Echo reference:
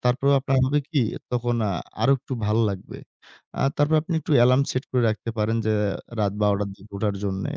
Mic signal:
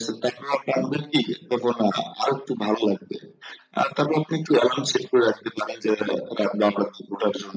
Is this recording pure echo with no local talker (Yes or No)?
Yes